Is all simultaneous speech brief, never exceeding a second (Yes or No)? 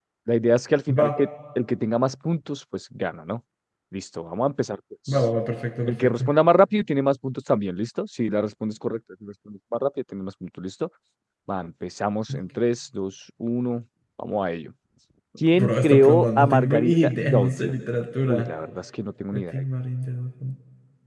No